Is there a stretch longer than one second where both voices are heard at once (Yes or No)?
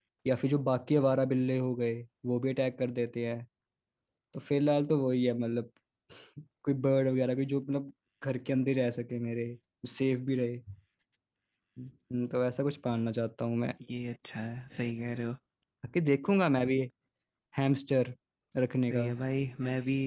No